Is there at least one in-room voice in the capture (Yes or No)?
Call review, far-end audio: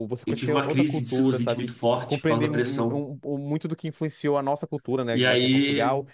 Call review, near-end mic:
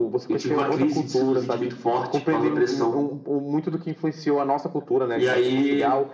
No